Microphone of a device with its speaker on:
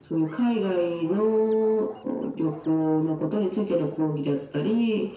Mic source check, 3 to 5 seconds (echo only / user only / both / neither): echo only